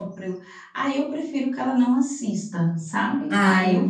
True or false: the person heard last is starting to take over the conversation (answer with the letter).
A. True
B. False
B